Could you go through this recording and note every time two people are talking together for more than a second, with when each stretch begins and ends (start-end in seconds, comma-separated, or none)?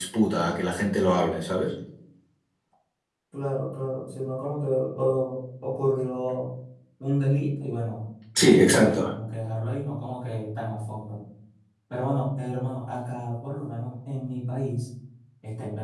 none